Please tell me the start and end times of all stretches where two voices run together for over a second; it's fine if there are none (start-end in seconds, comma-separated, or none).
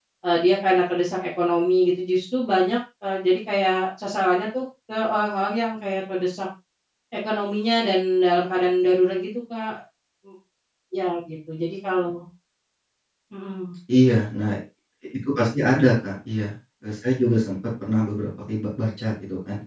none